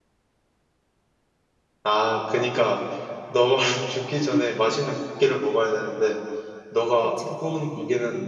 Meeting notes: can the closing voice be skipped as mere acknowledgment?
Yes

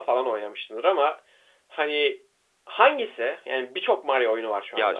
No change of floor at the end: No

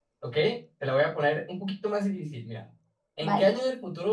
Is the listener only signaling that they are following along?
Yes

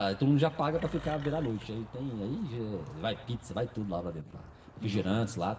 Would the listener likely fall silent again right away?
Yes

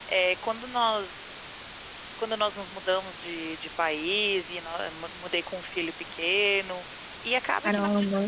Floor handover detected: No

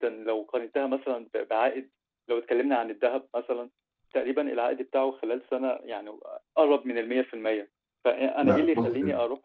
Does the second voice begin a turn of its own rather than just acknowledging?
No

